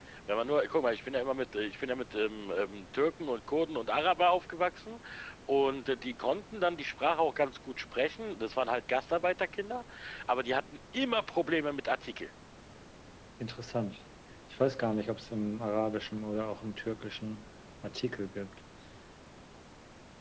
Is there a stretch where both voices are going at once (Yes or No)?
No